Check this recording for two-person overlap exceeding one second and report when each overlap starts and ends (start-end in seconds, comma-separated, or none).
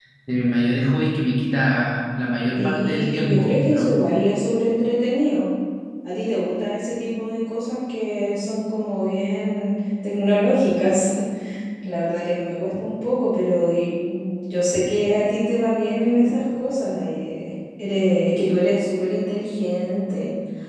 2.6-4.0